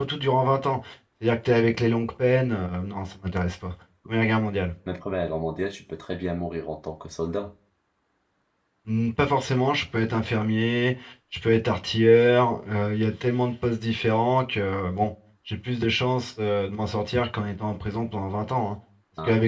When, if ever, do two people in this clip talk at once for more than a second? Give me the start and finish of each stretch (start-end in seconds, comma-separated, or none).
none